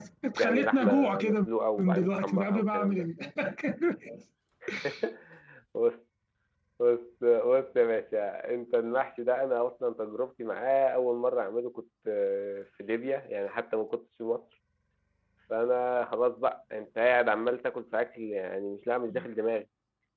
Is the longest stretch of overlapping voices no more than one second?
No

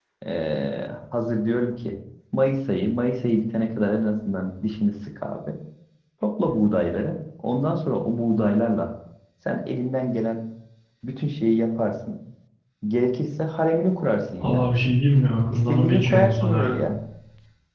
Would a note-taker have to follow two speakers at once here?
Yes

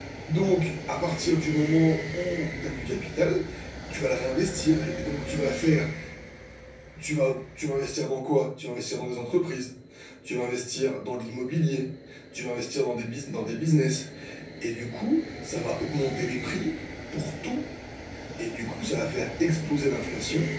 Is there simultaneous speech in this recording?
No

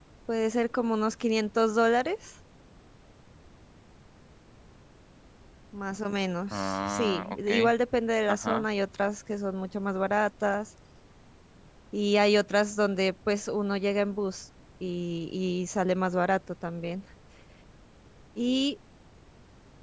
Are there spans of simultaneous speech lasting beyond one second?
Yes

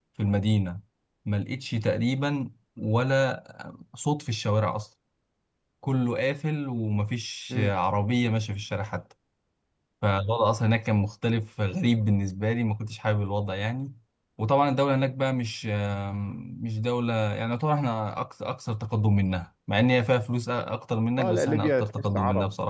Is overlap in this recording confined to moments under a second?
No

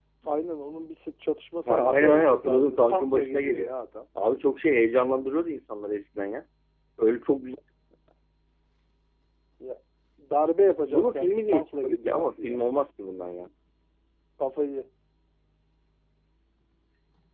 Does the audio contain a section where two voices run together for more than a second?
Yes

